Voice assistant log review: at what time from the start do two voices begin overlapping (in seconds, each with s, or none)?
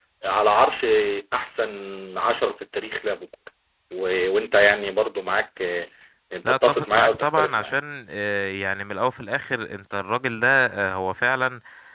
6.5 s